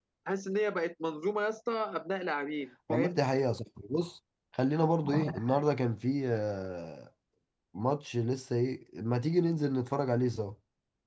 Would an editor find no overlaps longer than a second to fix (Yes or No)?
Yes